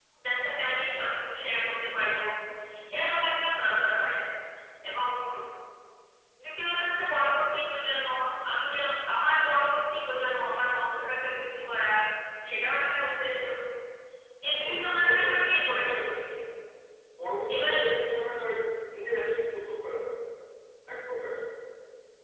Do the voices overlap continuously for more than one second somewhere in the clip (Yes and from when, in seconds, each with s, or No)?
Yes, from 14.6 s